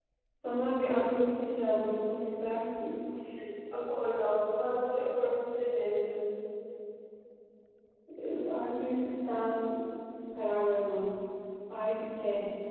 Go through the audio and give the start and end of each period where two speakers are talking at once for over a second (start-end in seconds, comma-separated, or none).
none